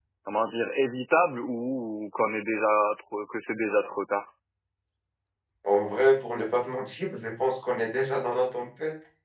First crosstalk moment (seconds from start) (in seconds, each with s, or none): none